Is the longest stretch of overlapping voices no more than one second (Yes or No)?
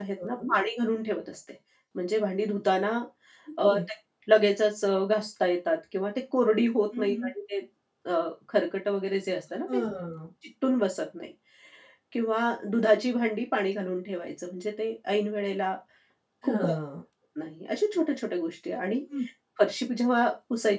Yes